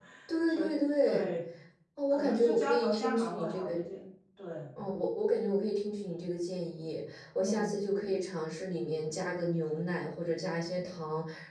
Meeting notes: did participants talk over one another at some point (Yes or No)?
Yes